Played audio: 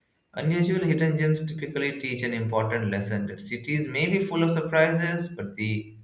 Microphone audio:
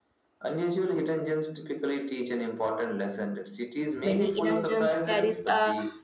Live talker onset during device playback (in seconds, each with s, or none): 4.0 s